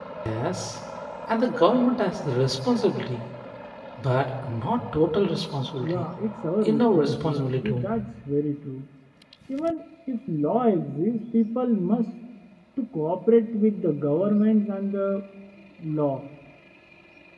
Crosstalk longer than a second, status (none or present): present